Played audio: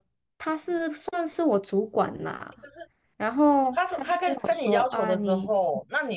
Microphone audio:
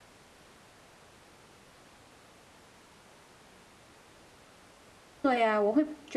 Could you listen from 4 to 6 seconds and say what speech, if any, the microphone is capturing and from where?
user only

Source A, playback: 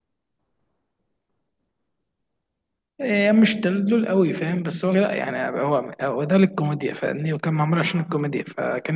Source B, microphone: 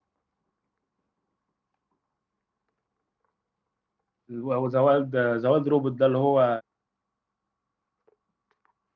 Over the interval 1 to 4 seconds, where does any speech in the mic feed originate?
neither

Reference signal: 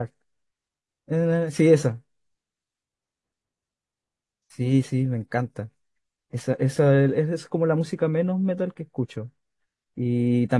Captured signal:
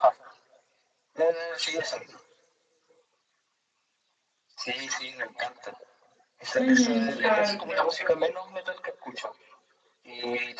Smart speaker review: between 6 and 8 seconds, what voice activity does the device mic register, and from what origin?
both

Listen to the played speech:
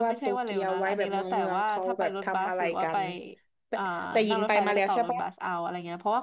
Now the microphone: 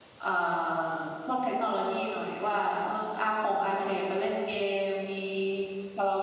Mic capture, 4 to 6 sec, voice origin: user only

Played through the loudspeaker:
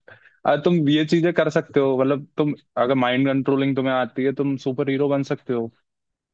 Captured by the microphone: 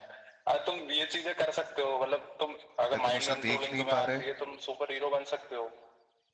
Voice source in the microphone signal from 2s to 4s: both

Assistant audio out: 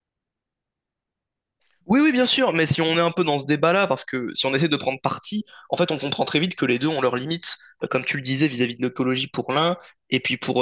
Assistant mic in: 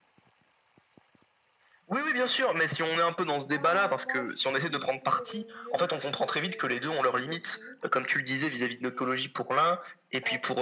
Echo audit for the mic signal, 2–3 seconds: echo only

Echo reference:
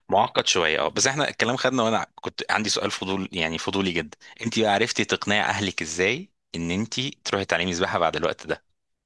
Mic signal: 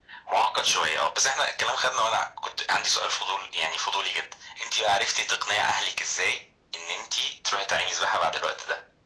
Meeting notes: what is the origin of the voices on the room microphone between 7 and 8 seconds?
echo only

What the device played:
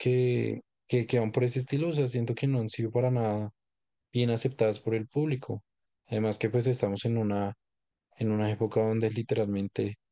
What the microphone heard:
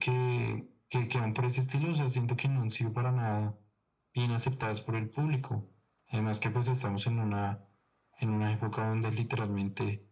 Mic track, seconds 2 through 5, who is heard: echo only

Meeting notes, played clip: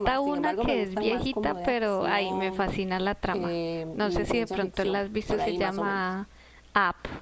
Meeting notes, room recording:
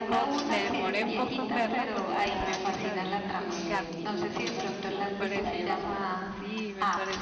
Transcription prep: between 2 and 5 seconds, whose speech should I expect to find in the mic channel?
both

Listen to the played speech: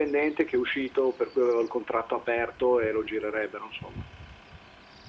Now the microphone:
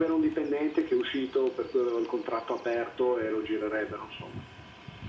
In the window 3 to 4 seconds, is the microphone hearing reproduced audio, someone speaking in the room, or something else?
echo only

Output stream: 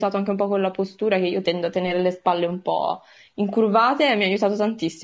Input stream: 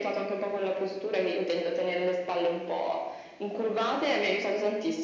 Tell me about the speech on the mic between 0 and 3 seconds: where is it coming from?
echo only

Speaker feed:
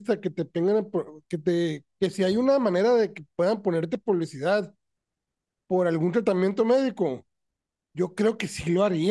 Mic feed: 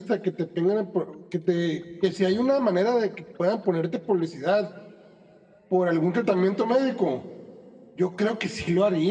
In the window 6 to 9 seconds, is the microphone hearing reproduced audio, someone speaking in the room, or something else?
echo only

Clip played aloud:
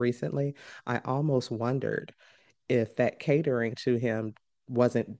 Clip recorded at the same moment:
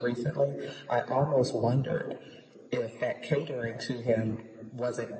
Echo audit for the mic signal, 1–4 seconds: echo only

